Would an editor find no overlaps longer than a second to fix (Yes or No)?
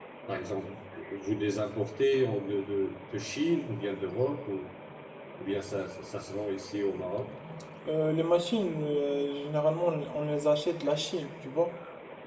Yes